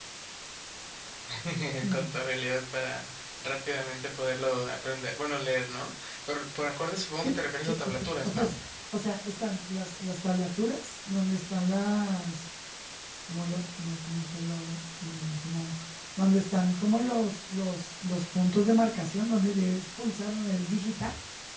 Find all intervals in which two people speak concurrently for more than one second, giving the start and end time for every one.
7.2-8.5

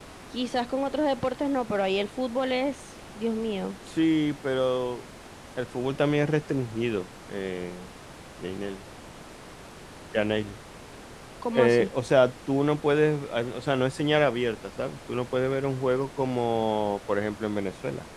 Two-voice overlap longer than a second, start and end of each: none

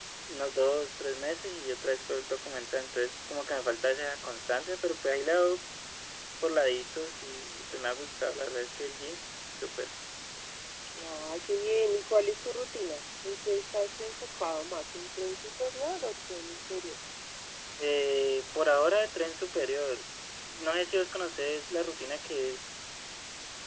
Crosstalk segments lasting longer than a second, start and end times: none

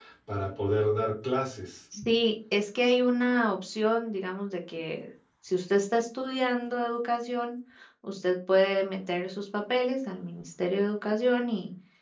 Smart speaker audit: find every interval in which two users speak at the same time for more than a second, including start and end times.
none

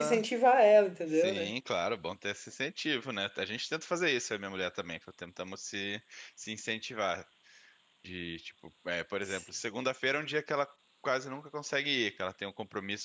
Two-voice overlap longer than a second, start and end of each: none

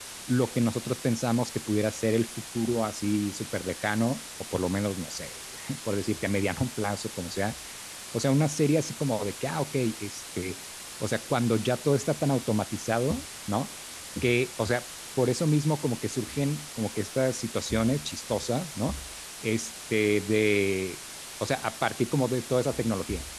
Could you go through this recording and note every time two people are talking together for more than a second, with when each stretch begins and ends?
none

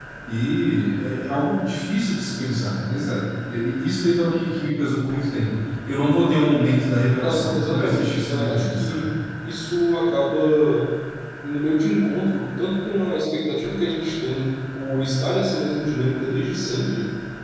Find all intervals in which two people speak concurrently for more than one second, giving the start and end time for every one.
7.2-9.1

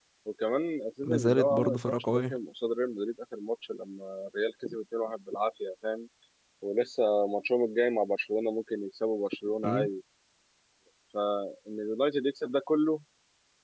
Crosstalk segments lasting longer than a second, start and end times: 1.0-2.4

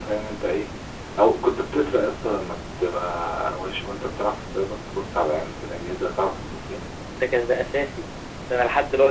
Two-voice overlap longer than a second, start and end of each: none

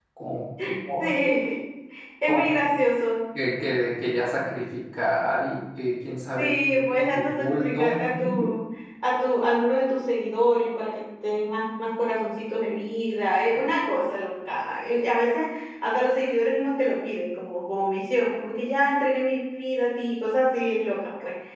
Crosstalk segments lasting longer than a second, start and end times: 6.4-7.9

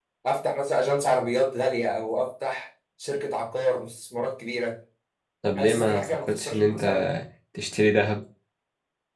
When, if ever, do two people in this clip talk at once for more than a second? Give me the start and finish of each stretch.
5.6-6.8

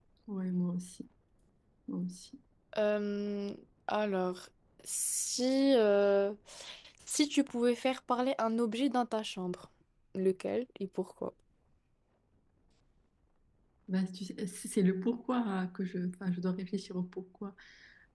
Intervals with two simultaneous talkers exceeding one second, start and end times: none

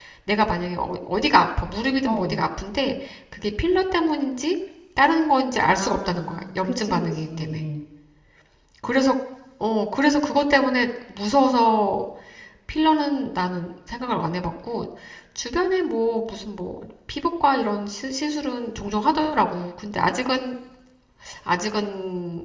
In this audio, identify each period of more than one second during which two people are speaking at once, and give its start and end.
5.7-7.6

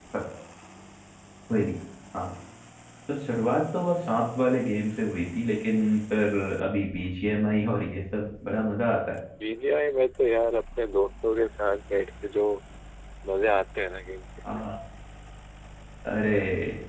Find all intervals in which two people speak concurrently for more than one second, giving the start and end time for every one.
none

